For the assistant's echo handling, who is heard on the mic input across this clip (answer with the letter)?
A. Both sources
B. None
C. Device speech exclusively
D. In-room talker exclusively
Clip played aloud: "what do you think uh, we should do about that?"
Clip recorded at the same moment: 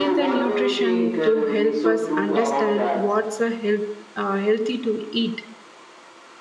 A